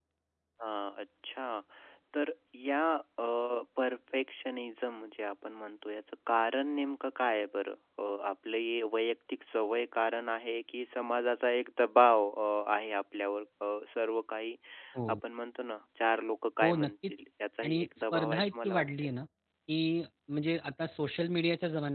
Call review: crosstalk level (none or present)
present